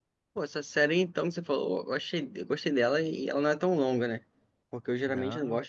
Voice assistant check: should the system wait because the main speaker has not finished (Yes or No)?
Yes